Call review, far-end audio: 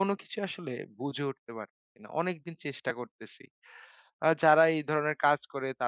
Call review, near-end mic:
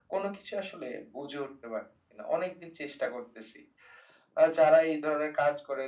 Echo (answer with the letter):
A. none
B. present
B